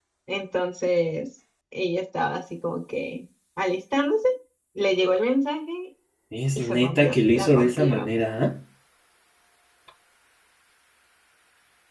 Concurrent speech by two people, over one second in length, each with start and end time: 6.6-8.1

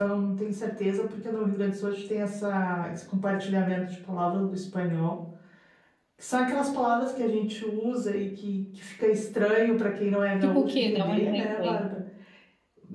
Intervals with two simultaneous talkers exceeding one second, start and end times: 10.4-11.9

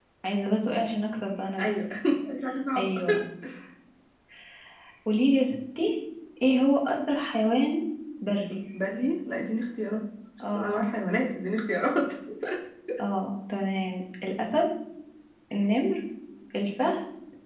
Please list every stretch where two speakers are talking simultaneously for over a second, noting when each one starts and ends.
none

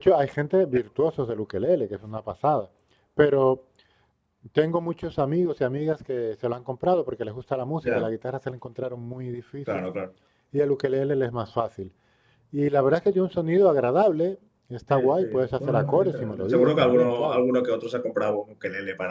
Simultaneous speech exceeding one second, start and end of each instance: 14.9-17.4

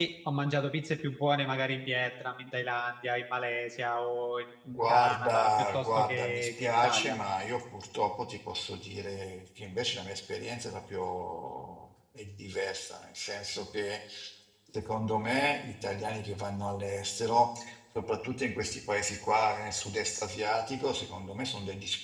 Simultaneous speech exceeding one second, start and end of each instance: 4.9-7.2

